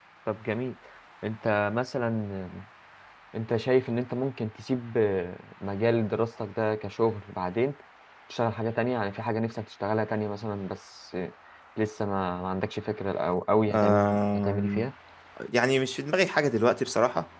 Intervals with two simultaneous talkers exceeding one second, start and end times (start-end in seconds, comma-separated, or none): 13.7-14.9